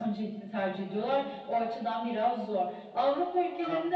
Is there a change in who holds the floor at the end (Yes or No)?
No